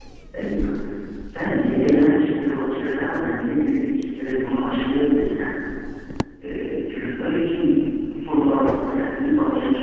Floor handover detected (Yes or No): Yes